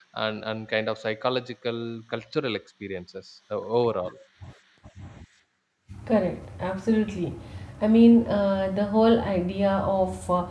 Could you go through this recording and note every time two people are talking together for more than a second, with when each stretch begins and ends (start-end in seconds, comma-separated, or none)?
none